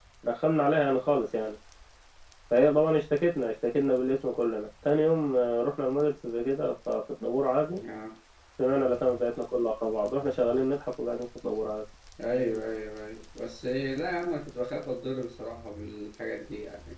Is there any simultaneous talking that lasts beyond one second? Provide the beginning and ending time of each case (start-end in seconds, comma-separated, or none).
none